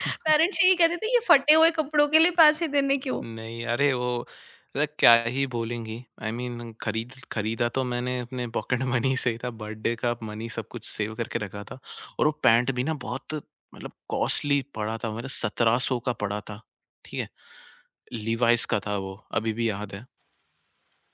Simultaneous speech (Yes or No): No